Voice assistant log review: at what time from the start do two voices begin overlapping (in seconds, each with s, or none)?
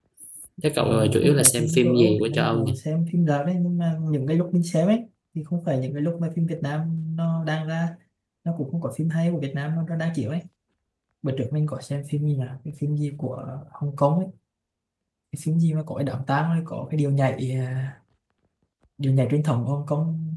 0.8 s